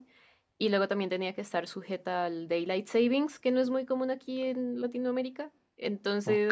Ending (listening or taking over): taking over